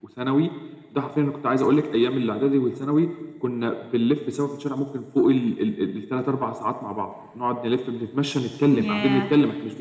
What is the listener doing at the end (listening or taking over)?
listening